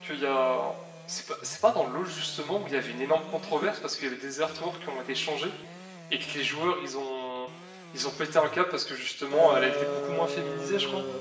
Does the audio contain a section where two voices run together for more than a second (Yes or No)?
Yes